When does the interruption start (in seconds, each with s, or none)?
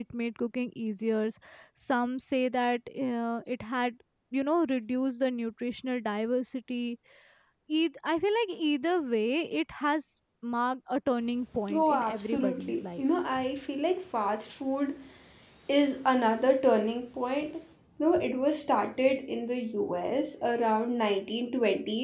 11.7 s